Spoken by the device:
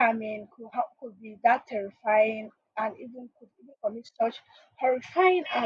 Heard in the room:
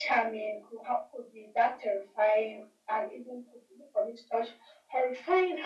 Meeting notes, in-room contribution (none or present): none